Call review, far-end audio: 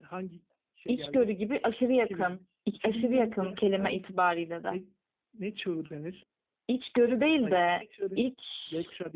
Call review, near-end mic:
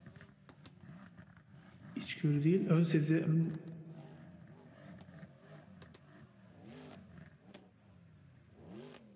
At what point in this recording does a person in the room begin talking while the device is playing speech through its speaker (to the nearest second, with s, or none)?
2 s